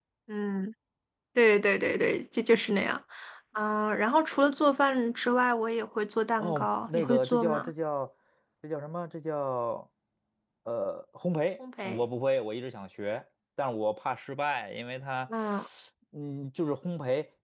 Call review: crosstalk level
present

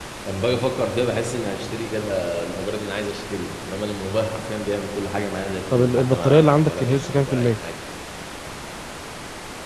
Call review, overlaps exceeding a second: present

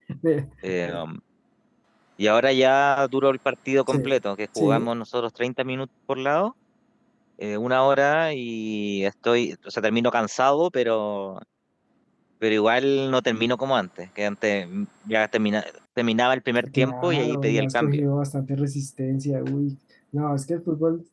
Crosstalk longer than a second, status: present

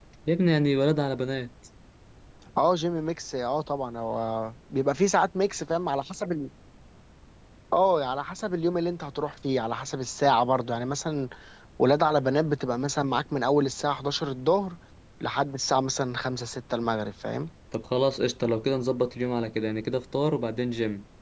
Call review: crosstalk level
none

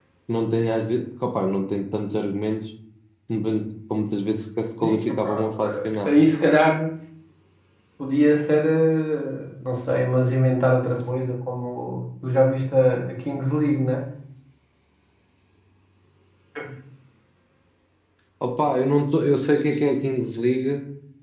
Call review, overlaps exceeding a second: present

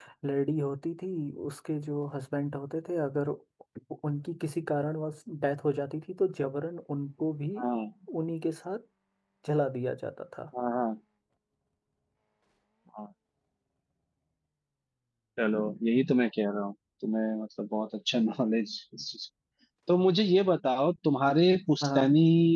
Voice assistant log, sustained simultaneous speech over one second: none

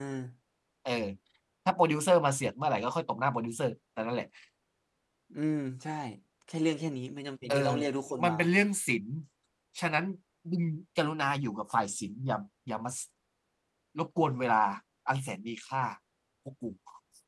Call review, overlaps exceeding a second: none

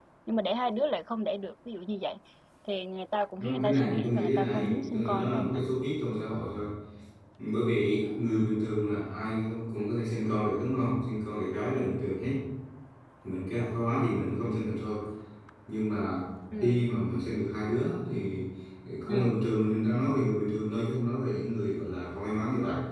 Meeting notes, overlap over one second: present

